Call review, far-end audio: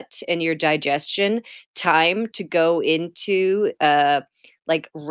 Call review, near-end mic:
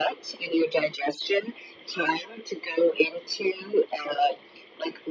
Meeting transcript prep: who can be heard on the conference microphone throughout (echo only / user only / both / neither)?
echo only